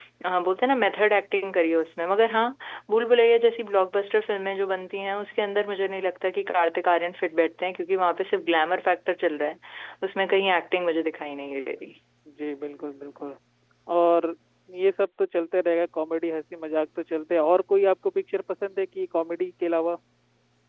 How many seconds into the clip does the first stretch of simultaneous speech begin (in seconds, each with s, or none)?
none